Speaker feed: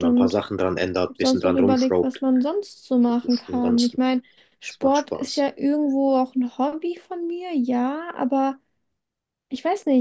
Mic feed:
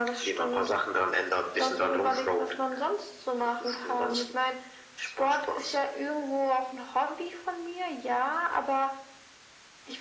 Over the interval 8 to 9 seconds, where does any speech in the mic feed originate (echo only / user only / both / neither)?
echo only